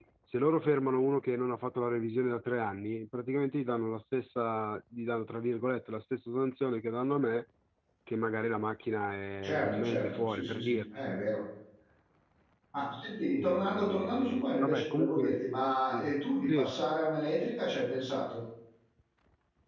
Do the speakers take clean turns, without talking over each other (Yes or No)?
No